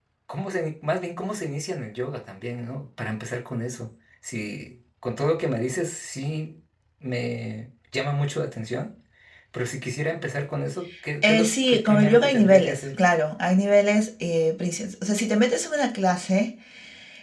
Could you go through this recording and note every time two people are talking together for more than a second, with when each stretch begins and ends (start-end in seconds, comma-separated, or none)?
11.2-12.9